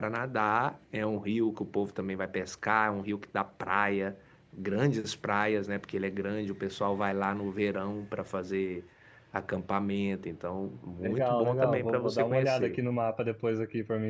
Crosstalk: present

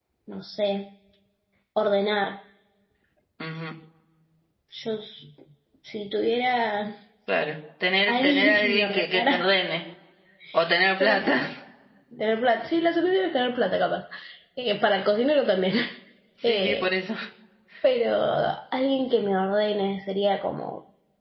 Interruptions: present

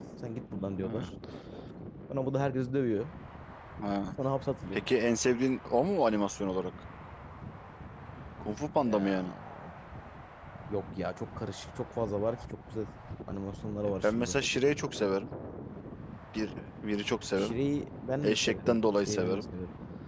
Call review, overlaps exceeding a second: present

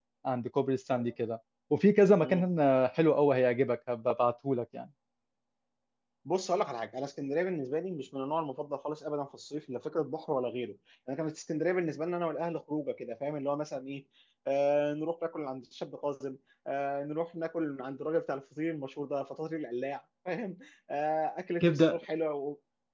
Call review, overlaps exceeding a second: none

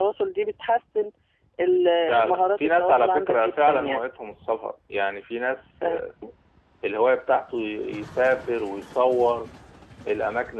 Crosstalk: present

